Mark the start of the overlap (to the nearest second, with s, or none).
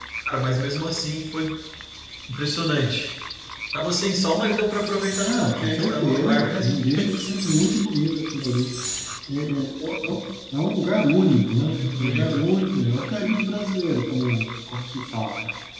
5 s